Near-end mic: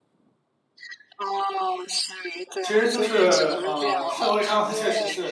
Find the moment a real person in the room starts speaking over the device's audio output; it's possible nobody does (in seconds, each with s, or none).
2.6 s